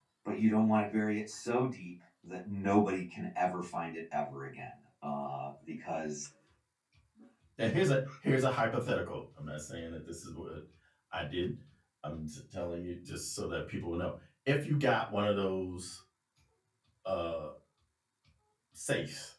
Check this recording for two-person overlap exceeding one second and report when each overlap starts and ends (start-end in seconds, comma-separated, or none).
none